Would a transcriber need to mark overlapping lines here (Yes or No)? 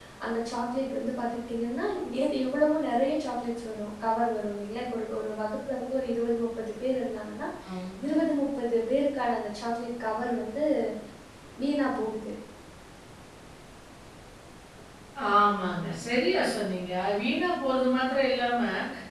No